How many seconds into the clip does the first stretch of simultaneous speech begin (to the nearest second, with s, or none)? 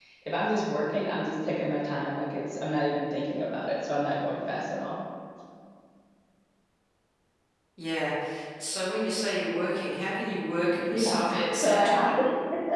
11 s